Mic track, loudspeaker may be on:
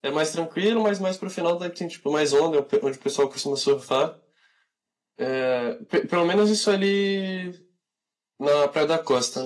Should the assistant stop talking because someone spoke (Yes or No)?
Yes